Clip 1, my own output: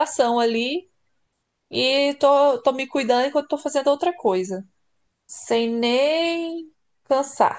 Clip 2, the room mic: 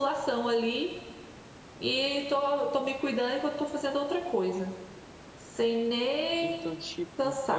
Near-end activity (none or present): present